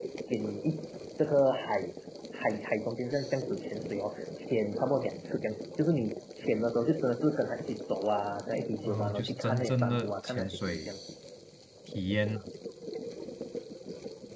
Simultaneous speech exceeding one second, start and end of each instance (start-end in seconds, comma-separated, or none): 8.8-10.9